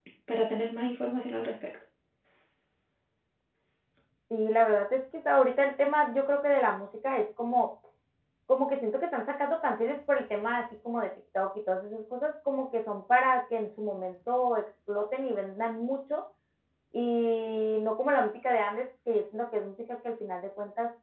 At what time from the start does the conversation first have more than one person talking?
none

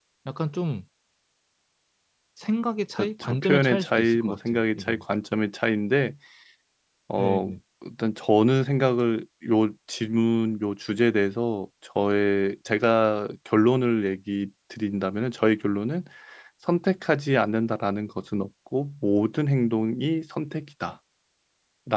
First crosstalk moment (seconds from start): 3.0 s

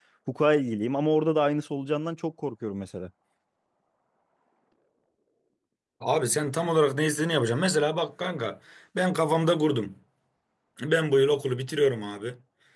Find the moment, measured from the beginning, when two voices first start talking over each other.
none

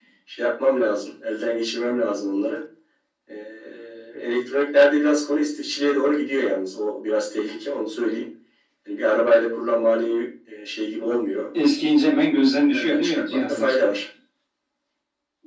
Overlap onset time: 12.4 s

